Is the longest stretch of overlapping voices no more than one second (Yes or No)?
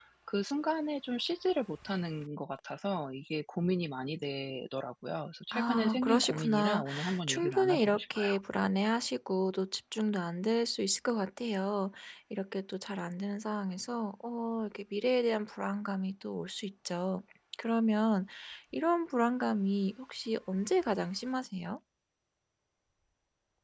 No